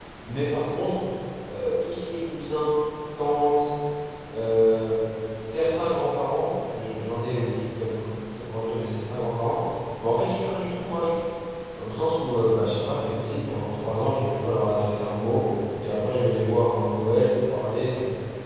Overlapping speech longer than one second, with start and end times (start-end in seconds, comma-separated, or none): none